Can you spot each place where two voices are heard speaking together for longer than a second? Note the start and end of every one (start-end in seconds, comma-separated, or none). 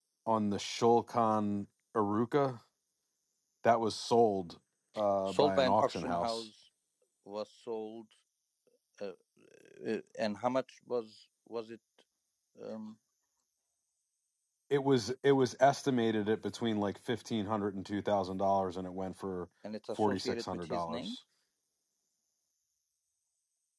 5.3-6.5, 20.0-21.2